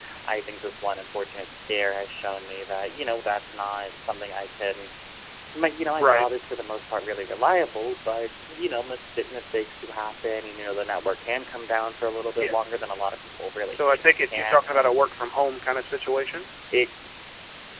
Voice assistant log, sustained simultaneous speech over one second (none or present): present